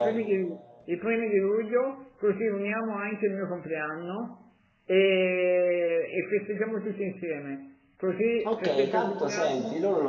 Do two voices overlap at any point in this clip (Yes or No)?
Yes